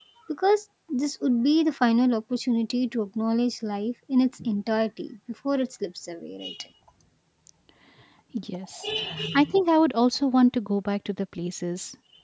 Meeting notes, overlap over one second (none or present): none